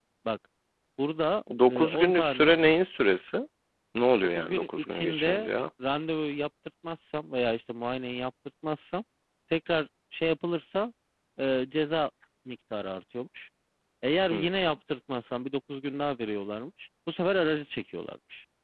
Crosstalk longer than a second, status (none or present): present